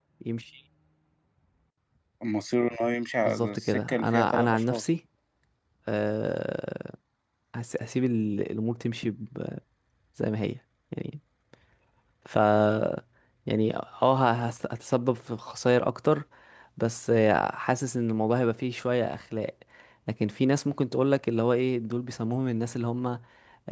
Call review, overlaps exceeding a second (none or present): present